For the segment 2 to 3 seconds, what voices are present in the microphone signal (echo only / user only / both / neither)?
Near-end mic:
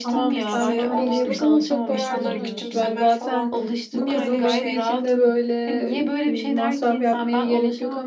both